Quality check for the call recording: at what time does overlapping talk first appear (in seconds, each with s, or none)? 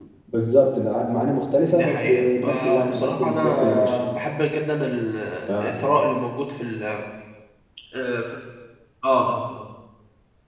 1.7 s